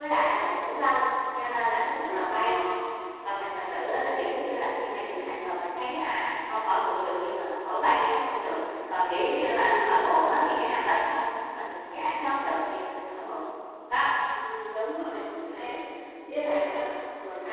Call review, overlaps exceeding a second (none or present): none